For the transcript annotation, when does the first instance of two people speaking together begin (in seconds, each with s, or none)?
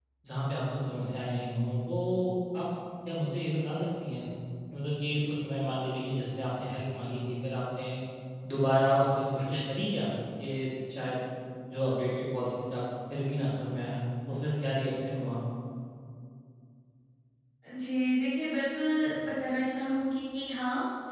none